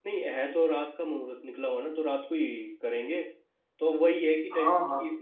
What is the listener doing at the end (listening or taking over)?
listening